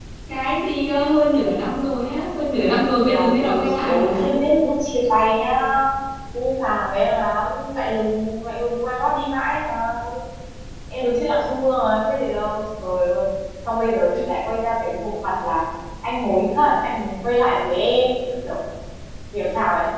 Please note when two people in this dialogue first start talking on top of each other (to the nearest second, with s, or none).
3 s